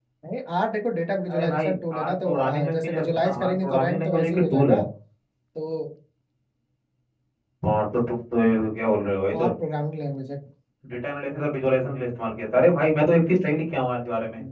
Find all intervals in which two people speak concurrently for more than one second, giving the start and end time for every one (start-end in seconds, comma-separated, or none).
1.3-4.8